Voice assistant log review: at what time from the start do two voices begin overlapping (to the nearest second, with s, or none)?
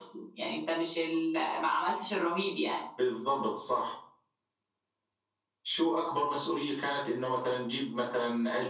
none